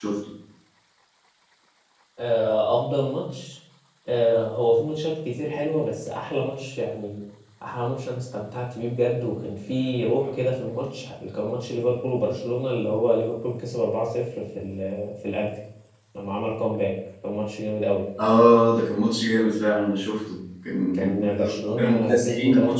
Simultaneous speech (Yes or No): Yes